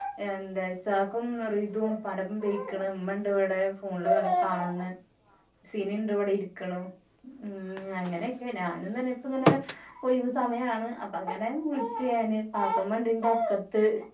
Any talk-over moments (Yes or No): No